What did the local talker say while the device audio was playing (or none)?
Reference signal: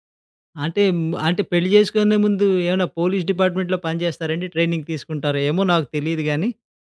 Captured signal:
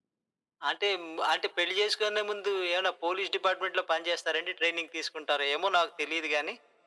none